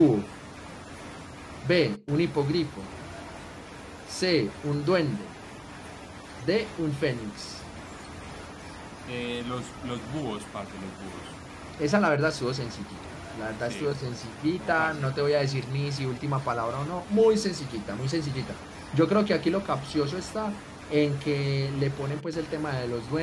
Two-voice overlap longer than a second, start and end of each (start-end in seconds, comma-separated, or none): 13.6-15.2